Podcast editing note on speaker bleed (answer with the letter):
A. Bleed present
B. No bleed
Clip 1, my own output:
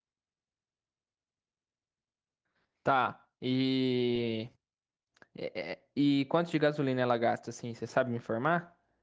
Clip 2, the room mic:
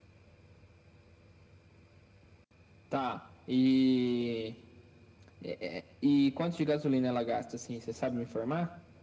A